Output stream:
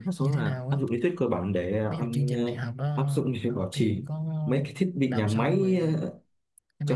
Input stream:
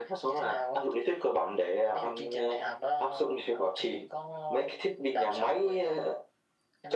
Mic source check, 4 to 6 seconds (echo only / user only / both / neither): echo only